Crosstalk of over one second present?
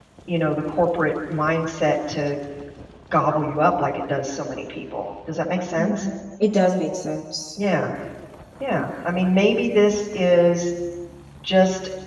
No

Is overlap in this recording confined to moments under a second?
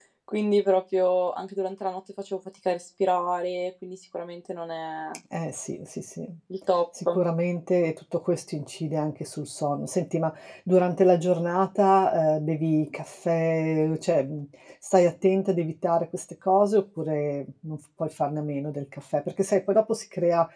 Yes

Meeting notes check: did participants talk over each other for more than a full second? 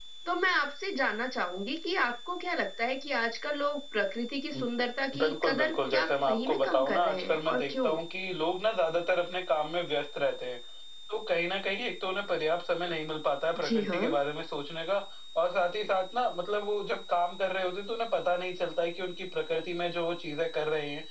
Yes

